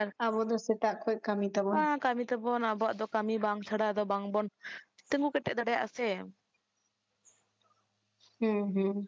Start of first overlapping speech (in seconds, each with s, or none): none